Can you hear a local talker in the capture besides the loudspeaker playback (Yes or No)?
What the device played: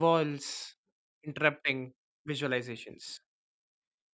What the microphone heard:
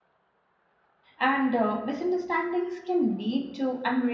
Yes